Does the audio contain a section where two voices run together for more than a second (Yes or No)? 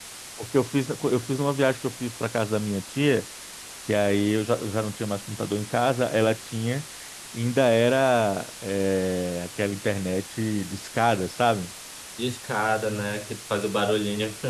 No